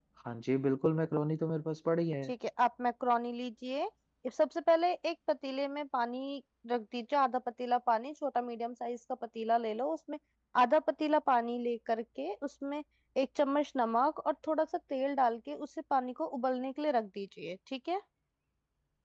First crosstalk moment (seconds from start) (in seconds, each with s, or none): none